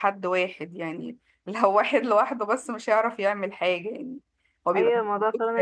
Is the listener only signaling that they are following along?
No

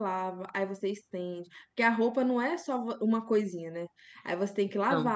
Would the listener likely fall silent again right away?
Yes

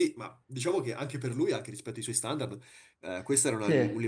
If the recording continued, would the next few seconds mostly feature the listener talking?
No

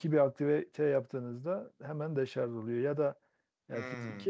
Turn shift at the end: No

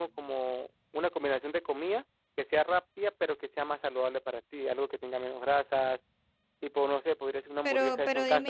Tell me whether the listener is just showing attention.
No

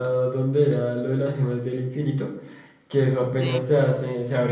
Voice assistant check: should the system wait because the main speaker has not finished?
Yes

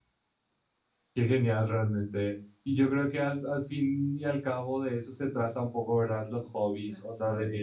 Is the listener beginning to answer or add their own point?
No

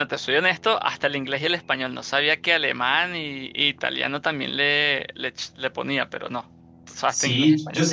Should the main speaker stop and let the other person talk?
Yes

